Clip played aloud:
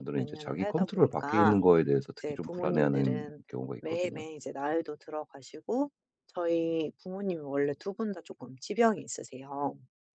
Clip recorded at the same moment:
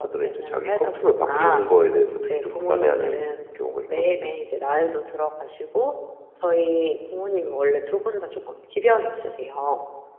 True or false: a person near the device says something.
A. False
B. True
A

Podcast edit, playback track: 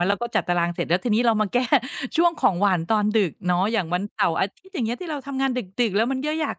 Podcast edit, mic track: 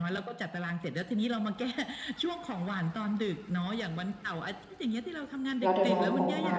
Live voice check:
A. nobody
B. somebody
B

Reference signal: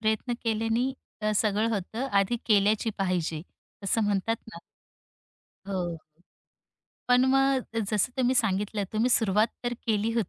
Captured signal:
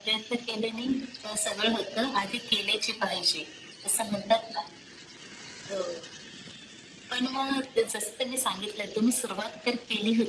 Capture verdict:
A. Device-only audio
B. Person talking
A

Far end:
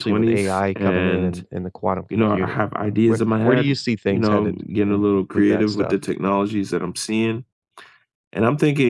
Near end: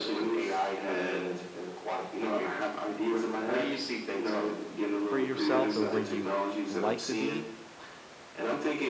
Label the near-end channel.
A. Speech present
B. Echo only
A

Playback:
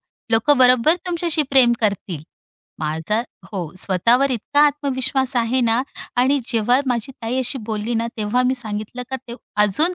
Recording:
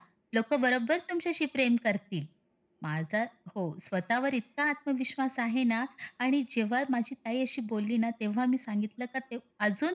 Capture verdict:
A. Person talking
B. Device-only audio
B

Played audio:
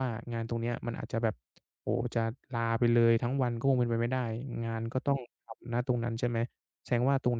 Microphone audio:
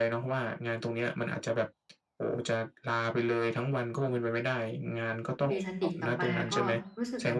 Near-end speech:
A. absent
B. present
B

